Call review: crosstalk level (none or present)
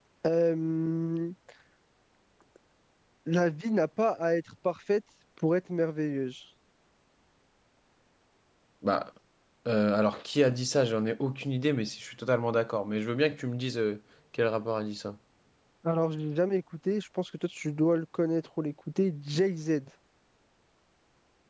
none